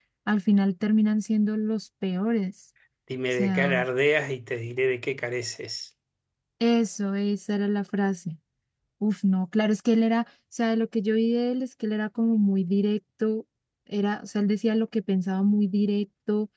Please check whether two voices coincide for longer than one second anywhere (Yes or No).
No